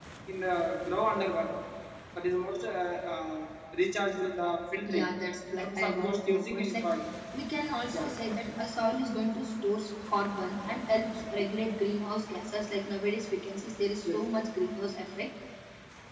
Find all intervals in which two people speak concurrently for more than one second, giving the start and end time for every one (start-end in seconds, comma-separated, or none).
5.6-6.8